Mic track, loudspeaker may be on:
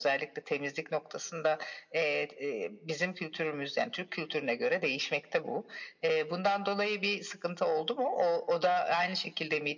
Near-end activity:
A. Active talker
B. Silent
B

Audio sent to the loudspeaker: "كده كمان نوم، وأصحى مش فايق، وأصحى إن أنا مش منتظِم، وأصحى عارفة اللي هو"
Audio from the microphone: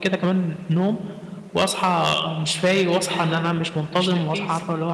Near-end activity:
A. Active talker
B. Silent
A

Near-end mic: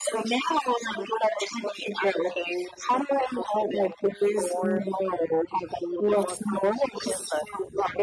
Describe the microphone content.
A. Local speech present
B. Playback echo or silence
B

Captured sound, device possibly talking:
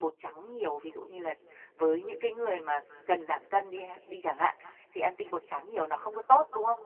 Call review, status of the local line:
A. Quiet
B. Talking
B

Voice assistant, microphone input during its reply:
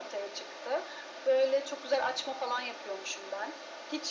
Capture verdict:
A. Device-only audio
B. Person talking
A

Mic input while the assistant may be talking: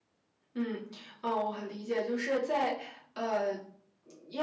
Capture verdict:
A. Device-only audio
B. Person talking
B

